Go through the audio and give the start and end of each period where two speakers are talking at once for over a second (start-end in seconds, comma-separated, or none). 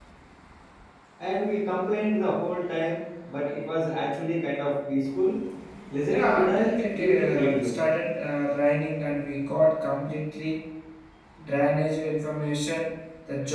6.1-7.8